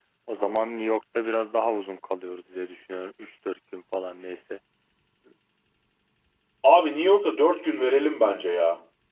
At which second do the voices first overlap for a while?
none

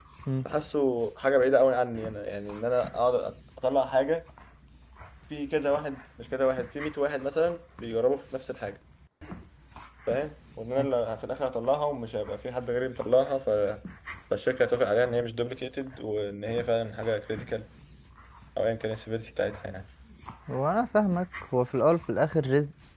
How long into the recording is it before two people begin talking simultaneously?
none

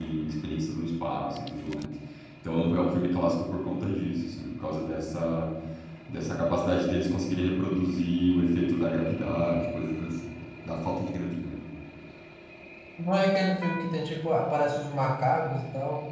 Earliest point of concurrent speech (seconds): none

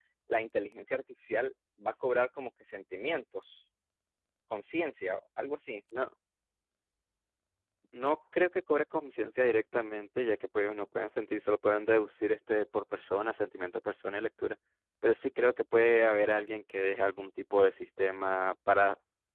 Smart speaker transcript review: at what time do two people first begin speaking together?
none

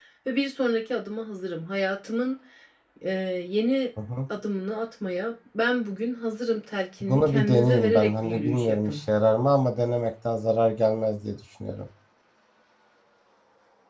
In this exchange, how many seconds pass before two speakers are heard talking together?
7 s

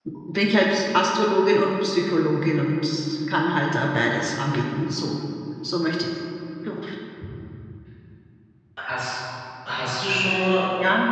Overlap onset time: none

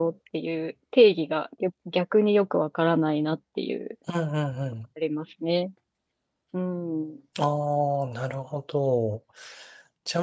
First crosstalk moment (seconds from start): none

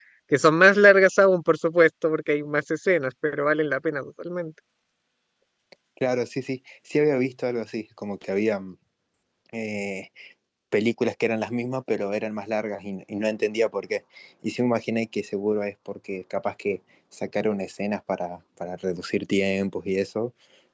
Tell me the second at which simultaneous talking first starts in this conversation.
none

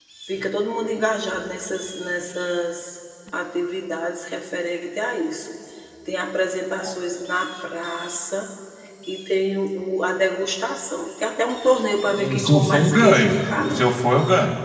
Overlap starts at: 12 s

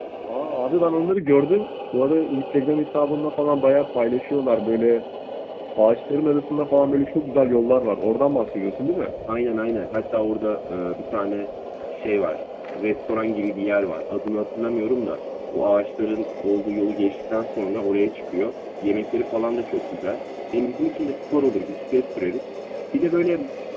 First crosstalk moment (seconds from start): none

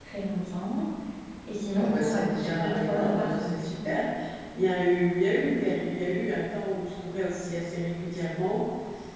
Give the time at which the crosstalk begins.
2 s

